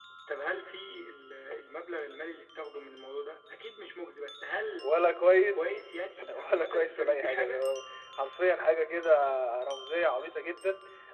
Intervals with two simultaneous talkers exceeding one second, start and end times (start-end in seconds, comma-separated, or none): 6.3-7.6